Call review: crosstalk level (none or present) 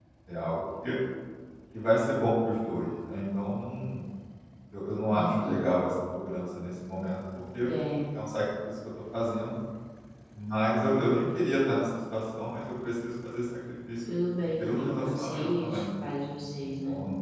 present